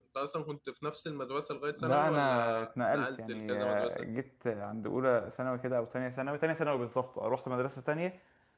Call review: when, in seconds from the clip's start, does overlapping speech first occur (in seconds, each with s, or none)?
1.8 s